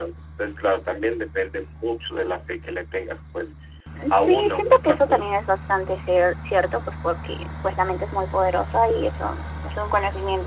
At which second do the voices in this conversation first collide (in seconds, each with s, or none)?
4.1 s